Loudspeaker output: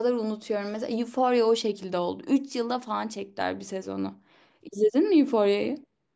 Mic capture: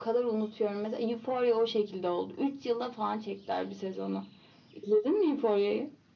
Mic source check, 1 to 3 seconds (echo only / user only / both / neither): echo only